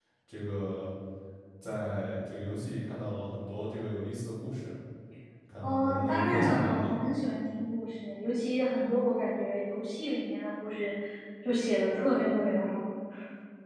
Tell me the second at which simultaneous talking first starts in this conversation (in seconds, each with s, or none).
5.6 s